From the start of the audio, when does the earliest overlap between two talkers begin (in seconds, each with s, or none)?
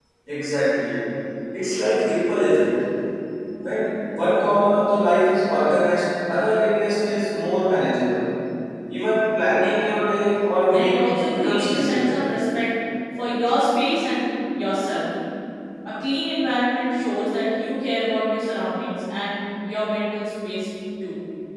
10.7 s